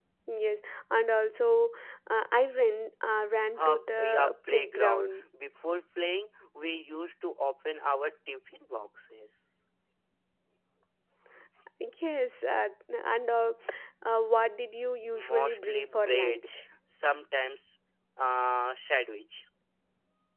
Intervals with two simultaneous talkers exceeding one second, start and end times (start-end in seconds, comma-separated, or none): 3.6-5.2, 15.1-16.5